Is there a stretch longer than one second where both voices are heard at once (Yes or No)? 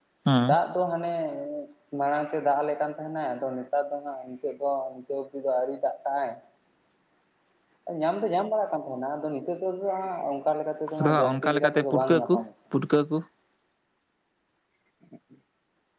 Yes